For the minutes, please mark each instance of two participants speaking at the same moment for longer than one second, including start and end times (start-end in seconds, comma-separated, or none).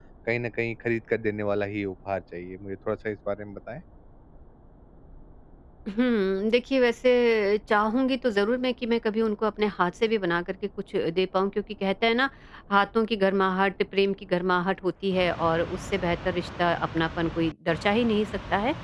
none